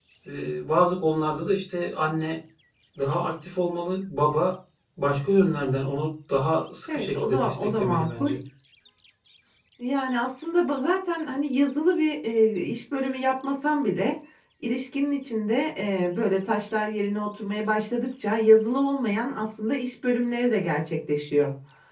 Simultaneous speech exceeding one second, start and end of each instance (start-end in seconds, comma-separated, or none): 6.9-8.3